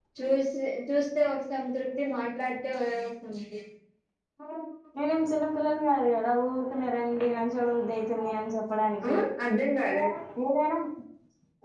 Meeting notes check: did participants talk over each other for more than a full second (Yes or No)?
No